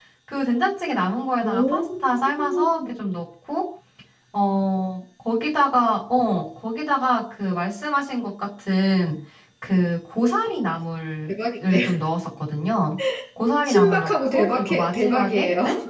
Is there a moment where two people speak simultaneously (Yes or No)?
Yes